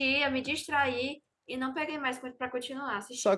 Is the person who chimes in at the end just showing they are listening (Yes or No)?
No